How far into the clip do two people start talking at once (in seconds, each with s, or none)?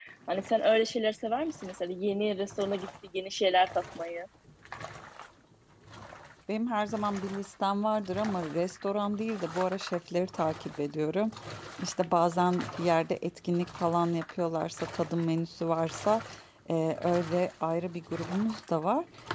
none